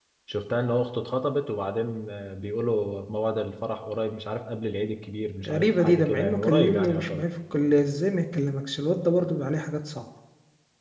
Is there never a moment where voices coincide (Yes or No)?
No